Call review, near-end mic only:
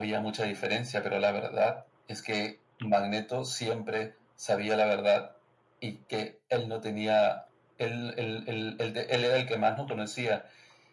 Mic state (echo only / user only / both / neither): echo only